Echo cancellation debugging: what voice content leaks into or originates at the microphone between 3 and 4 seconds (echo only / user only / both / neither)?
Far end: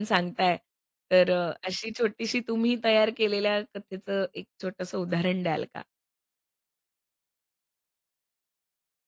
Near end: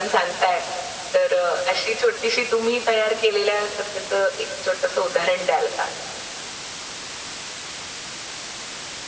echo only